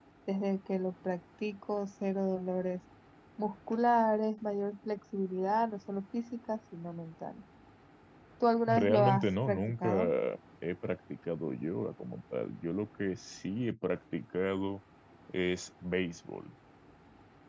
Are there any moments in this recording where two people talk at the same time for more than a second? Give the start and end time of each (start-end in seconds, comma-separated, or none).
8.7-9.9